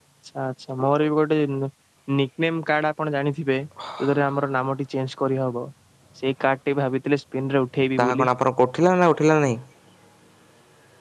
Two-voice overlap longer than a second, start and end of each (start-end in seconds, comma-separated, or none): none